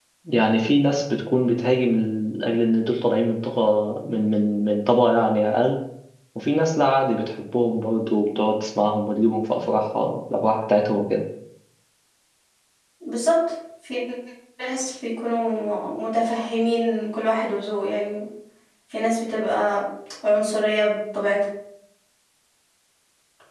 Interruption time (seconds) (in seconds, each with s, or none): none